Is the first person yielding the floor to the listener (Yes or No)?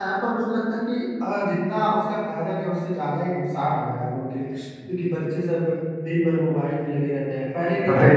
Yes